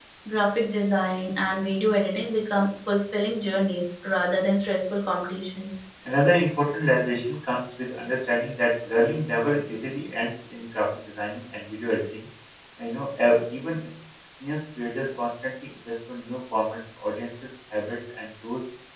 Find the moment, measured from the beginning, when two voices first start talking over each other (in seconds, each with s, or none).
none